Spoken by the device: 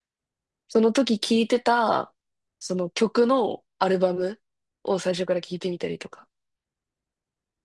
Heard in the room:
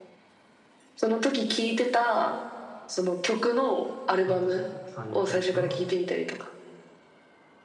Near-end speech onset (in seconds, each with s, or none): 4.2 s